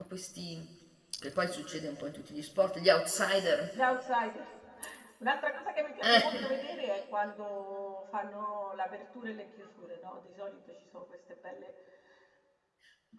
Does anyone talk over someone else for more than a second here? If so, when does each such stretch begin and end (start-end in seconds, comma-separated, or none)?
none